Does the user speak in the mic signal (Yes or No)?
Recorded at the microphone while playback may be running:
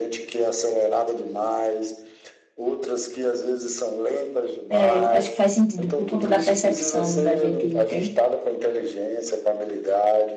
Yes